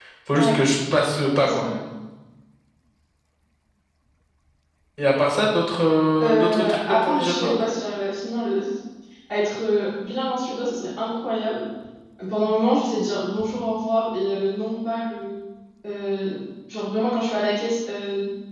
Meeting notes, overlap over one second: present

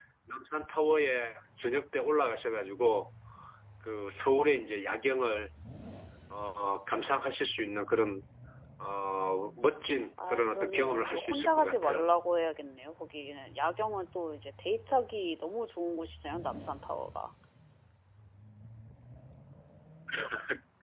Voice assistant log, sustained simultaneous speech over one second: present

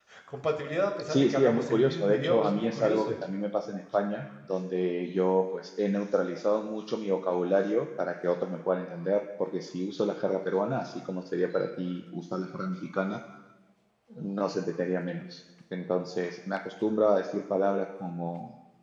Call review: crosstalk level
present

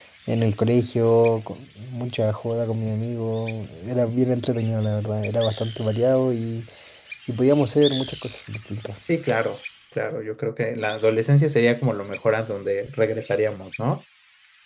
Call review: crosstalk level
none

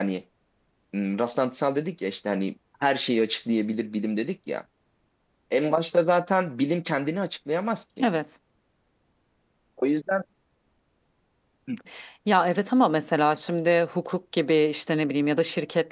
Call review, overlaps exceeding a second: none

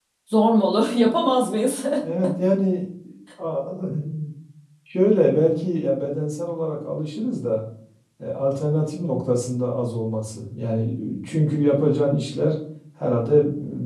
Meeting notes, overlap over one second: none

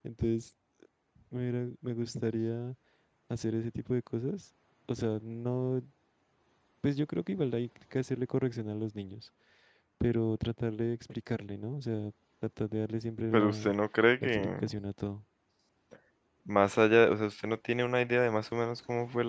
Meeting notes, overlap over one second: none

